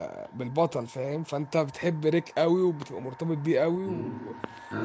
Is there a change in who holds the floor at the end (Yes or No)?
Yes